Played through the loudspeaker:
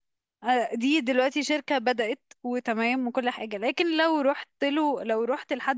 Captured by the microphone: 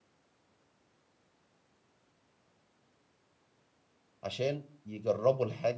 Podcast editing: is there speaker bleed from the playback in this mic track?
No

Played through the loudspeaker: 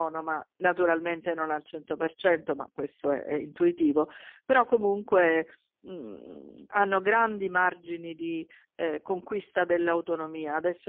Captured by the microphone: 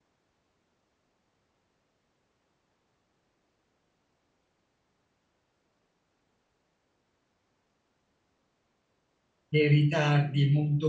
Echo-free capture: Yes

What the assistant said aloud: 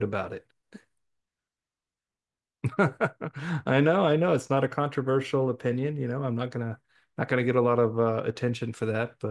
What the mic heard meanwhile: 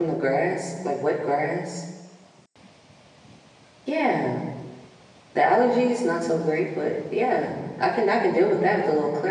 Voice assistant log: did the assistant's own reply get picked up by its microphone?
No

